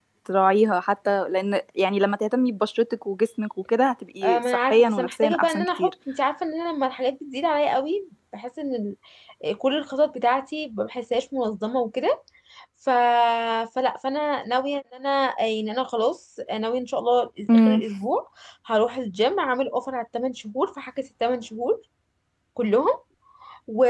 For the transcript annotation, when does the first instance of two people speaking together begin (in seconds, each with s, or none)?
4.2 s